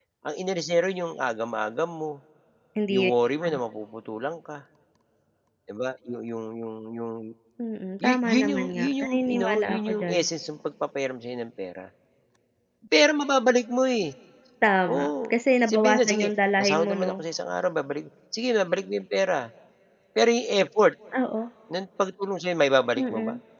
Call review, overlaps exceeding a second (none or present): present